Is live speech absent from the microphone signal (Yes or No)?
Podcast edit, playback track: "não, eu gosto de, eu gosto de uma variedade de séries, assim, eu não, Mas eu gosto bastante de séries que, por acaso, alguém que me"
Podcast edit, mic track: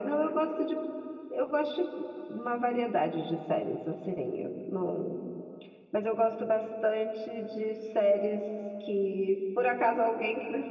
Yes